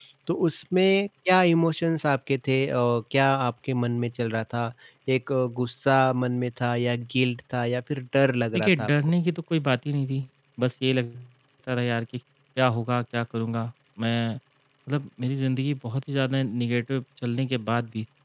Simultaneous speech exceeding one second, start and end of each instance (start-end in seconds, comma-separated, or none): none